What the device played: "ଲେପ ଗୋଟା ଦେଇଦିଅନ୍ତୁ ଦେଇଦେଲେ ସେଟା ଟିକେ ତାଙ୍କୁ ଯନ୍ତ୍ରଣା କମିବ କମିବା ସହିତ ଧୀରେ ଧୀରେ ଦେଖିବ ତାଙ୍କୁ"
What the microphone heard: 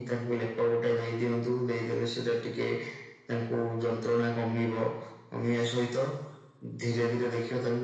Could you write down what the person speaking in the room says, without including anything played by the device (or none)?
none